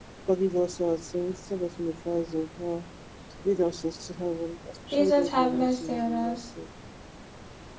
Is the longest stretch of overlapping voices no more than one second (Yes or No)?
No